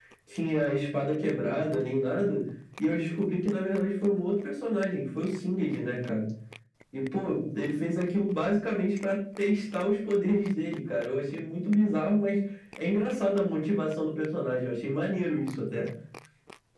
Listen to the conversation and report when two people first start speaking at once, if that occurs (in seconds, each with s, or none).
none